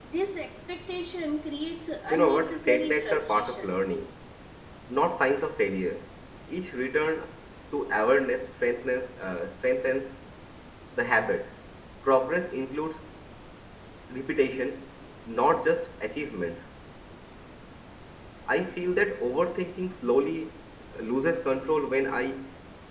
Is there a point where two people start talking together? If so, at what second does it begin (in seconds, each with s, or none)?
2.1 s